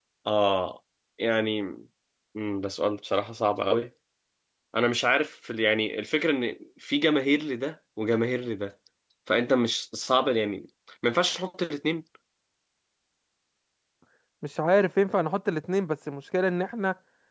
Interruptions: none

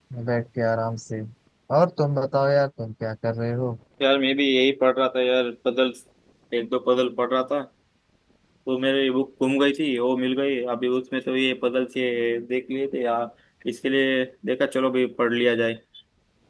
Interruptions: none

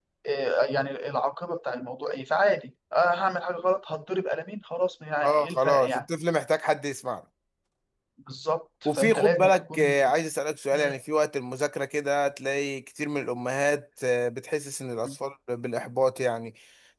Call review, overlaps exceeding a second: present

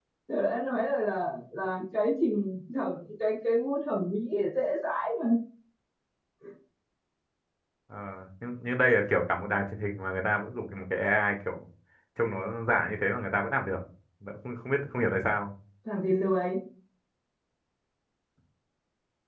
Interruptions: none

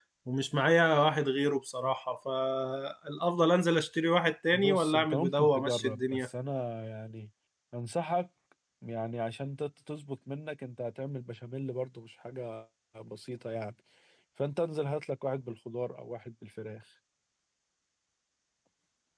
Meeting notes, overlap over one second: present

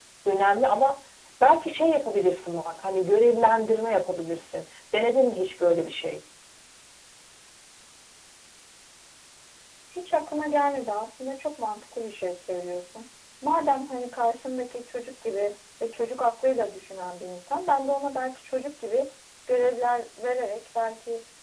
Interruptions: none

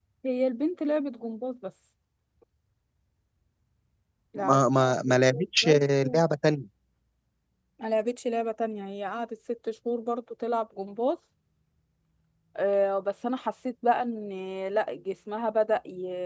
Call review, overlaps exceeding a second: present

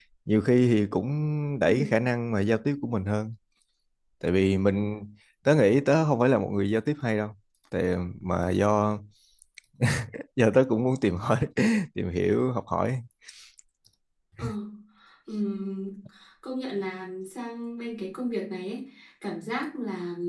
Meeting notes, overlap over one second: none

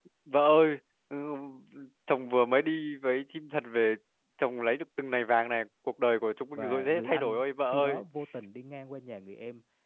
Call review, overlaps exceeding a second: present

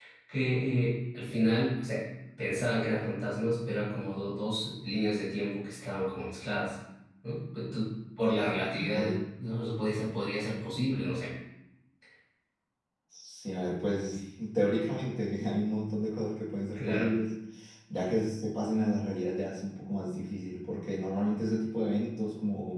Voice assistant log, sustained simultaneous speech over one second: none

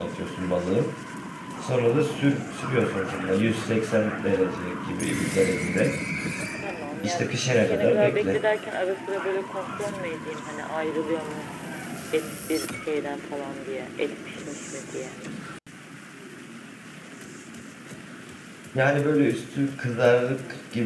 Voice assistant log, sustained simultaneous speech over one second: present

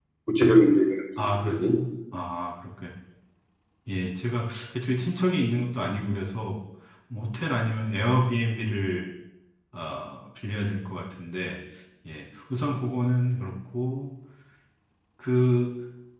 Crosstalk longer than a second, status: none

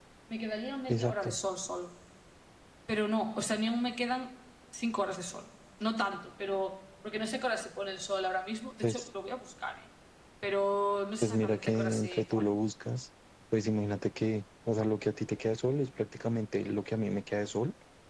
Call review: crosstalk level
present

